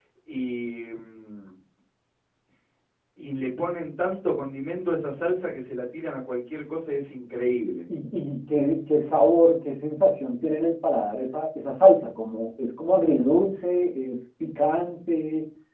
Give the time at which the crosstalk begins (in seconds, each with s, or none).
none